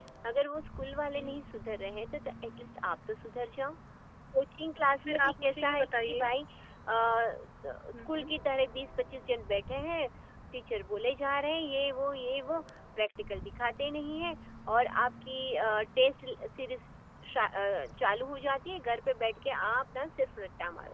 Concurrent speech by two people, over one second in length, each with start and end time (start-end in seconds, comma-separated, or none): 5.1-6.3